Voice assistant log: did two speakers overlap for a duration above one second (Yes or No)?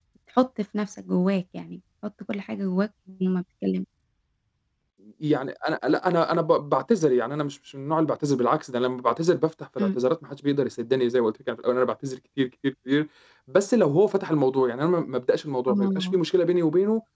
No